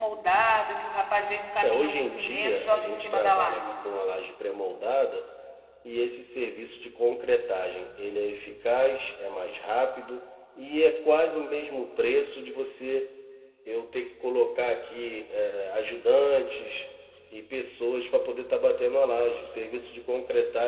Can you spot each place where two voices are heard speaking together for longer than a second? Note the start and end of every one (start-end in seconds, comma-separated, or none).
1.6-3.9